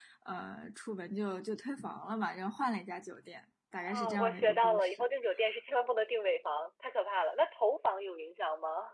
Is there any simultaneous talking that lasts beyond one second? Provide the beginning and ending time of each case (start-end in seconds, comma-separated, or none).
3.8-5.0